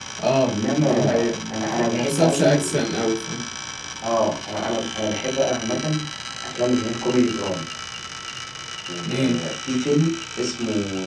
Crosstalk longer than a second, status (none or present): present